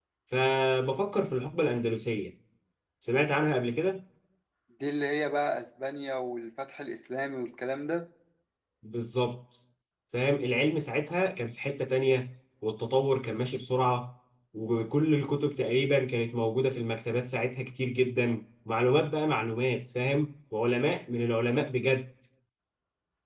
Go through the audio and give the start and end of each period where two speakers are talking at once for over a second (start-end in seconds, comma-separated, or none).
none